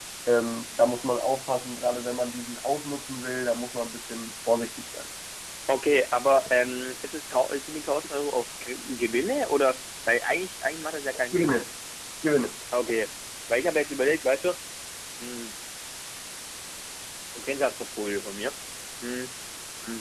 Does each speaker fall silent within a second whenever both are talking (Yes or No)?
Yes